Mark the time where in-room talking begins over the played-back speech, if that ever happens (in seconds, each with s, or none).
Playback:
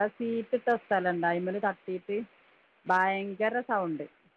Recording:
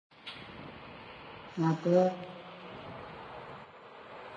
1.6 s